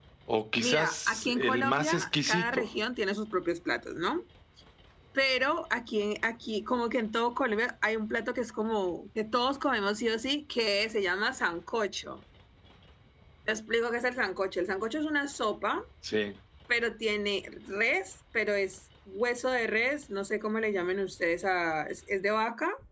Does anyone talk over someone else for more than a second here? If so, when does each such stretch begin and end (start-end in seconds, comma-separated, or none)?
0.6-2.7